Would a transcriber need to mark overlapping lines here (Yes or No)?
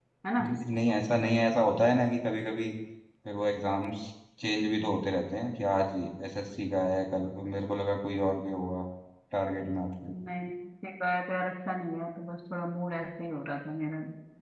No